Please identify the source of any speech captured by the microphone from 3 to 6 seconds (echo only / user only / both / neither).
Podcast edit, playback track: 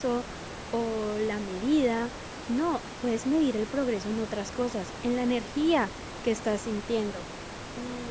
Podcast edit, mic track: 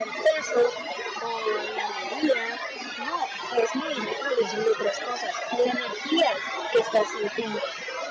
echo only